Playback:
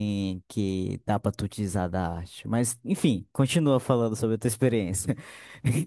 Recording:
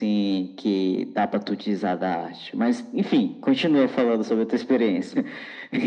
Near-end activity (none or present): none